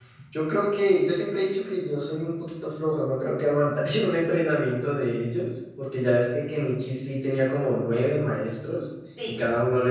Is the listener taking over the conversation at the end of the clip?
No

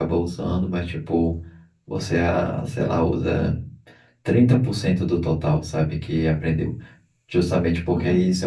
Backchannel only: Yes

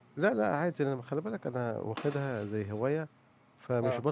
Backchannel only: Yes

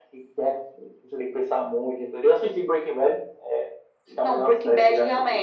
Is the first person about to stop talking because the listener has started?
Yes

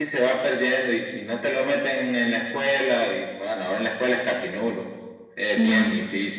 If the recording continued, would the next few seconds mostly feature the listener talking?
No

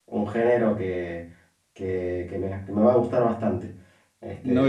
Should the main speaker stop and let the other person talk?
Yes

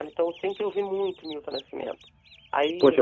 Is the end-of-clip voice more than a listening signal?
Yes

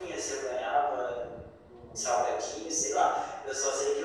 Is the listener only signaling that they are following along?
Yes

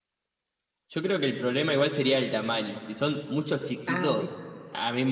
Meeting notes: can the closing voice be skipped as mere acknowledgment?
Yes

